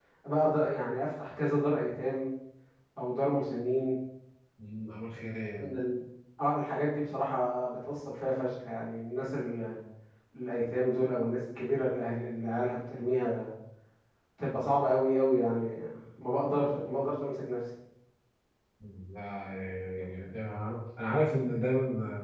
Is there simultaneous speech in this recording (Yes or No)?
No